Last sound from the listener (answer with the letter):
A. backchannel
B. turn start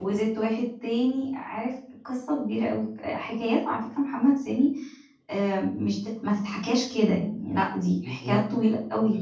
B